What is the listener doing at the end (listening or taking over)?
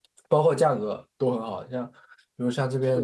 listening